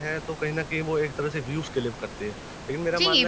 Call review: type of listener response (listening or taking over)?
taking over